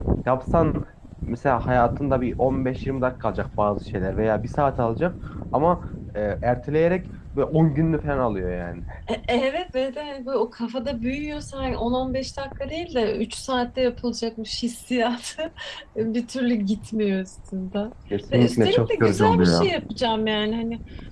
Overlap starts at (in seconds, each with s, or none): 18.3 s